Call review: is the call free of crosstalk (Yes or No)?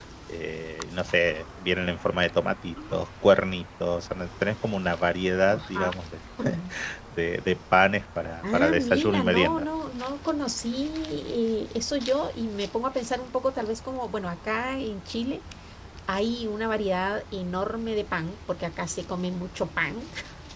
No